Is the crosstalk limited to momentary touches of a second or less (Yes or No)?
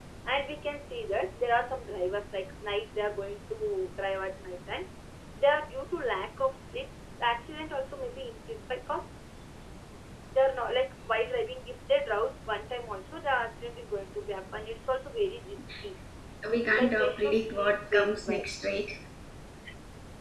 No